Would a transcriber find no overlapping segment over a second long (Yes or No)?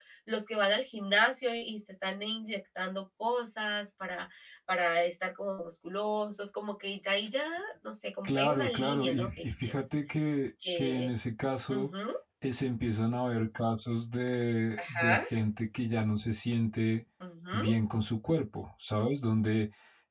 No